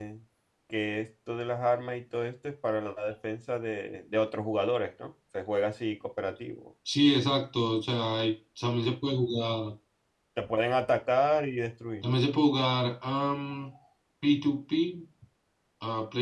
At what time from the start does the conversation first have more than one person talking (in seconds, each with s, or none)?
none